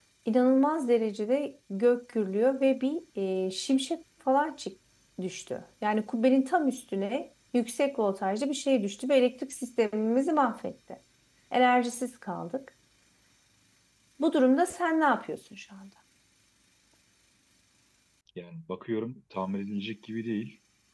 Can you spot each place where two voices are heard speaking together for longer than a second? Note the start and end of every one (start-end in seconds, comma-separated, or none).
none